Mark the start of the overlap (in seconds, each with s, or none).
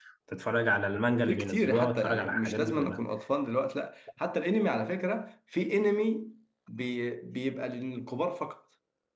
1.3 s